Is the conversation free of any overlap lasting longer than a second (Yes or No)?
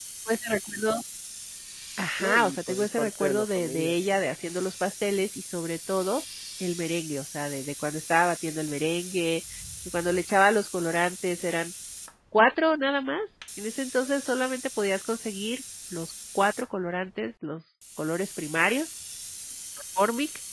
No